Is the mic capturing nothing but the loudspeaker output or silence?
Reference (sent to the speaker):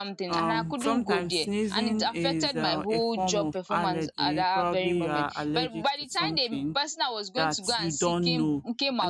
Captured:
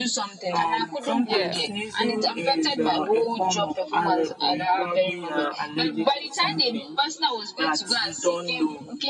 No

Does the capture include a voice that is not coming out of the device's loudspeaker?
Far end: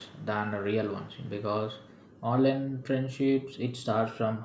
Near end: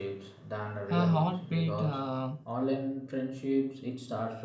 Yes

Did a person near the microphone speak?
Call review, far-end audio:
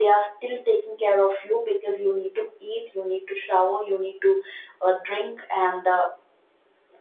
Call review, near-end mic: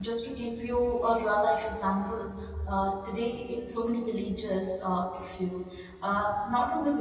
Yes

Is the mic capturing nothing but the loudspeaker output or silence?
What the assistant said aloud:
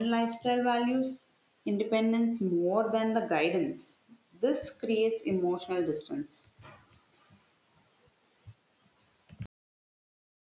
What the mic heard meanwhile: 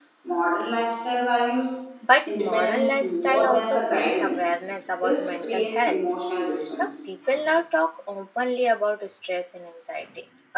No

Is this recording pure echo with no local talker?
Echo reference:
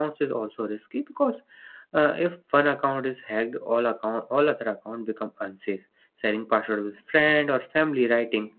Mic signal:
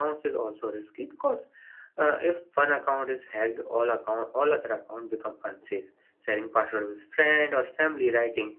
Yes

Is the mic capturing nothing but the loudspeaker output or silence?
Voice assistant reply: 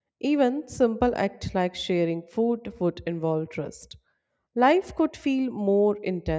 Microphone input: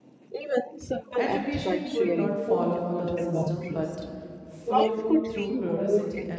No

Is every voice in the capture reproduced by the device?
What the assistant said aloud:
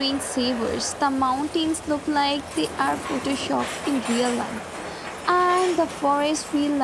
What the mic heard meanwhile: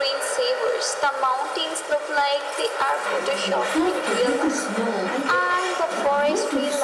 No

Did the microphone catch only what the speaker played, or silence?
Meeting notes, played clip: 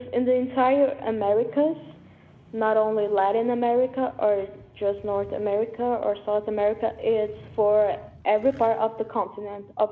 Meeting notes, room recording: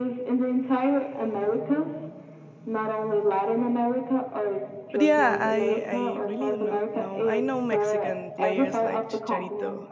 No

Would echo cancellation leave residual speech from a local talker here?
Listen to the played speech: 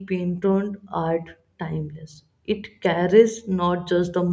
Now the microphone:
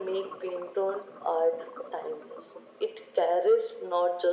No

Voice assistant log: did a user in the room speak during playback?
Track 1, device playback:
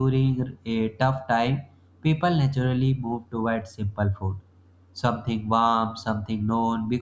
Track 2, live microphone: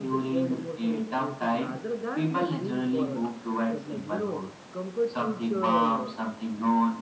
Yes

